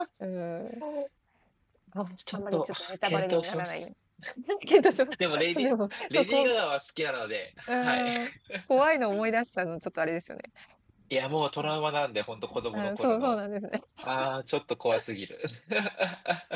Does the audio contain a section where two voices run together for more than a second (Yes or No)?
Yes